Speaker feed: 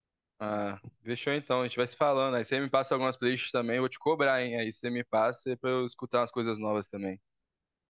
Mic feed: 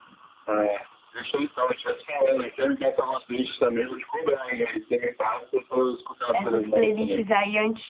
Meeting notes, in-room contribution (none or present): present